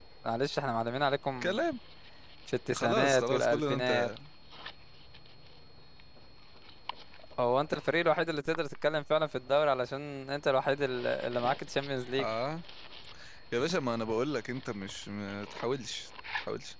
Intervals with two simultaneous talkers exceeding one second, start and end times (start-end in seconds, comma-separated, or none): 2.7-4.1